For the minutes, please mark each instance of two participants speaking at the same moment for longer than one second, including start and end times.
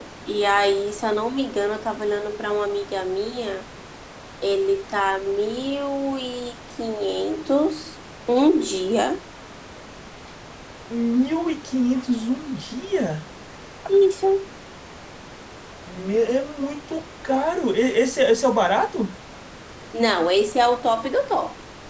none

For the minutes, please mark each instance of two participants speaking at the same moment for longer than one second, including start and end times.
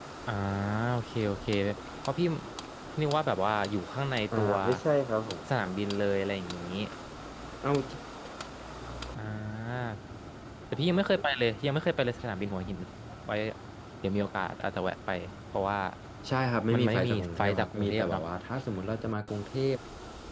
16.7-18.2

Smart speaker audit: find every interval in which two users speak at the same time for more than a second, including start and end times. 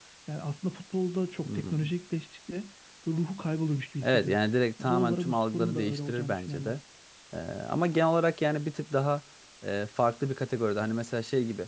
4.8-6.7

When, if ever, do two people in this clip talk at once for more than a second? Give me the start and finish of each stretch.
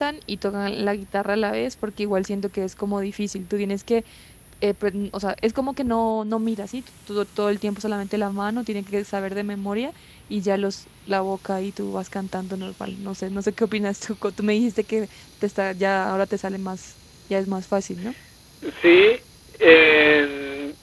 none

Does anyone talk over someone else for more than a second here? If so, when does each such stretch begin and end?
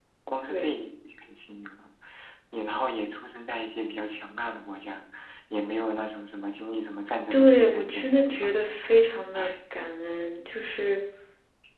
7.3-8.5

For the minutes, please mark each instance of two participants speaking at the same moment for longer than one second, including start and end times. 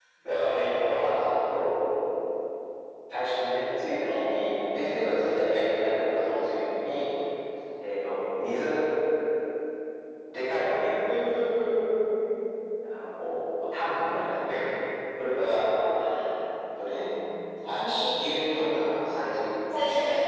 none

